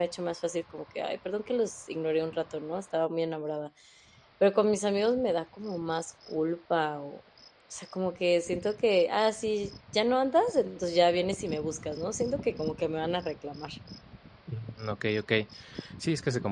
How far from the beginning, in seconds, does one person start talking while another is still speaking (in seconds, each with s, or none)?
none